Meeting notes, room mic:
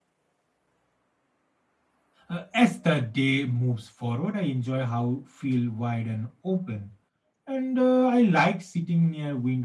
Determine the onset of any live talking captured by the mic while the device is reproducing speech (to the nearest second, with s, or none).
2 s